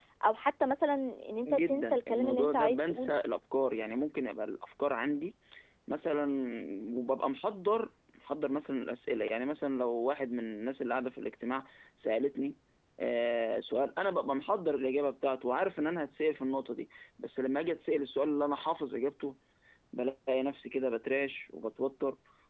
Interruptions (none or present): present